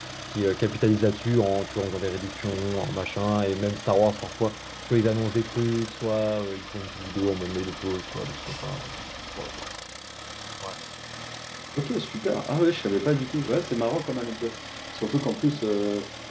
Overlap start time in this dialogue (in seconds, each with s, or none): none